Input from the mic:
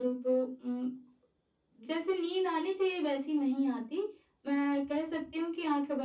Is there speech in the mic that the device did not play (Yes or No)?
No